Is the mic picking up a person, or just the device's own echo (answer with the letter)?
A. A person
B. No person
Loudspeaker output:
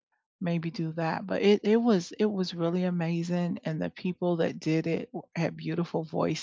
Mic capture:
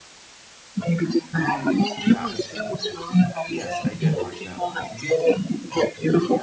A